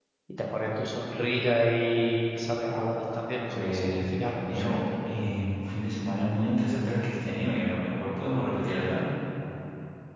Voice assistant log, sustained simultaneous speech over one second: present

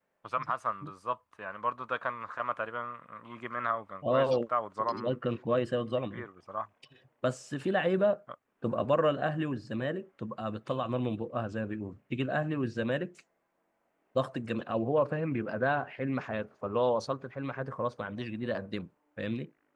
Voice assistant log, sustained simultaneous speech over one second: none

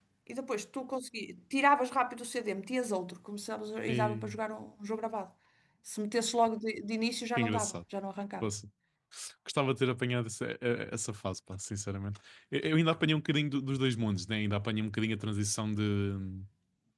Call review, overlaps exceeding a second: none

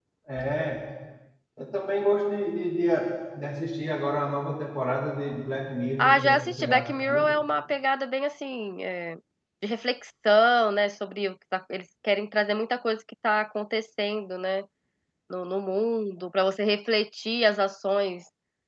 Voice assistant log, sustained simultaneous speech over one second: present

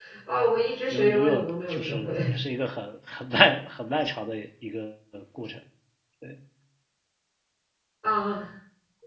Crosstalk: present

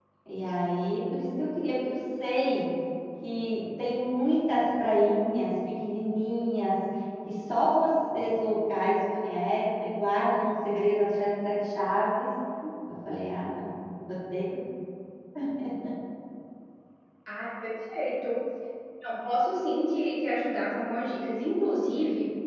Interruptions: none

